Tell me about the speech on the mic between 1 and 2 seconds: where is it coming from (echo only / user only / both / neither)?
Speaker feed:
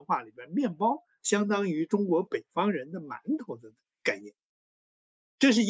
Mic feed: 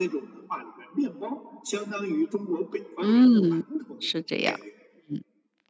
echo only